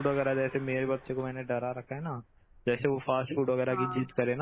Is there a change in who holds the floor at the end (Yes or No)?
No